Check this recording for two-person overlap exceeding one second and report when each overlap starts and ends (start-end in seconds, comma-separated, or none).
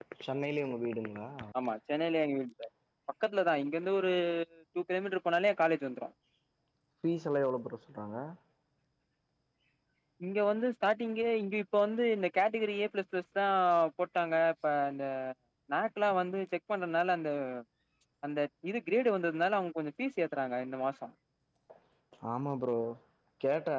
none